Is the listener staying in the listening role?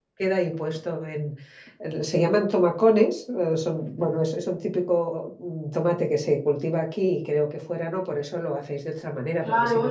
No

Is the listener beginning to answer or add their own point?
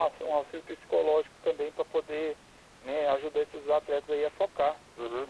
Yes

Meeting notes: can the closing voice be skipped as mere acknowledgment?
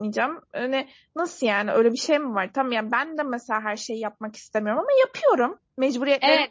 No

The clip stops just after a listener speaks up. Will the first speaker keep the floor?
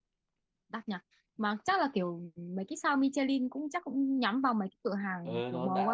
No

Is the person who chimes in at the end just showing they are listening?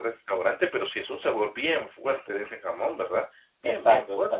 No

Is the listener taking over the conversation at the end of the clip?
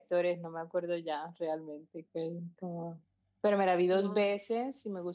No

